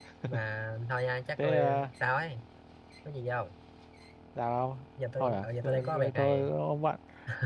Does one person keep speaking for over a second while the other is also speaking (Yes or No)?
Yes